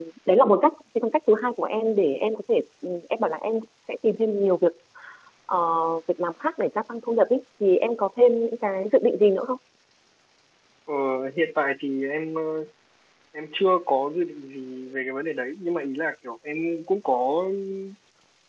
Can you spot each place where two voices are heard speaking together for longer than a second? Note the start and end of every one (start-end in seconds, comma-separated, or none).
none